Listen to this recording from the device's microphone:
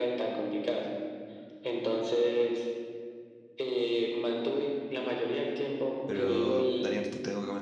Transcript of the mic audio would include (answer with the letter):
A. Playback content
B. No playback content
A